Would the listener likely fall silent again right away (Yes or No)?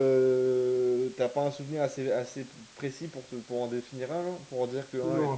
No